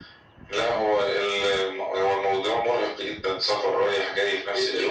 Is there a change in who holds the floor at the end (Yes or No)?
Yes